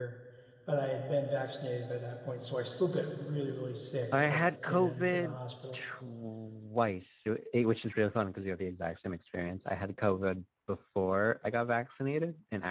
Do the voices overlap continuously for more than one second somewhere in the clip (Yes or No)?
Yes